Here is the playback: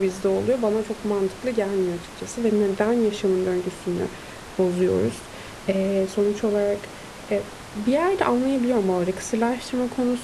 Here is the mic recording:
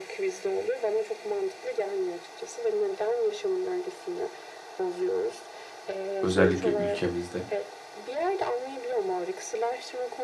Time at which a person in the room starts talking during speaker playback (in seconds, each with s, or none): 6.2 s